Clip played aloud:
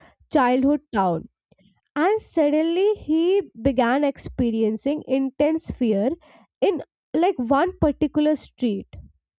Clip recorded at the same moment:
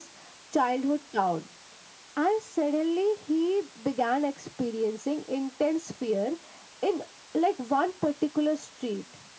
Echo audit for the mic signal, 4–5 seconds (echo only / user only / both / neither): echo only